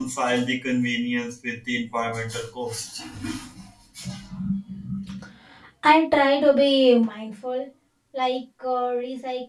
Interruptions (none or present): none